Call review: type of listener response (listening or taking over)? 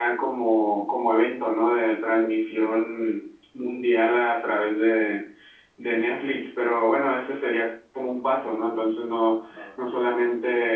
listening